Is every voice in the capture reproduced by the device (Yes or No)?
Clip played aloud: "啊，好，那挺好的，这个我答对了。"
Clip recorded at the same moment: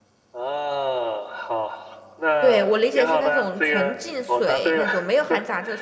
No